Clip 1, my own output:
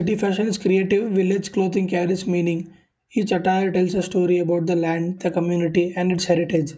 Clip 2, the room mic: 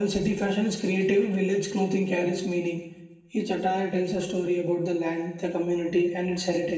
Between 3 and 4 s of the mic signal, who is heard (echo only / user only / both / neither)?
echo only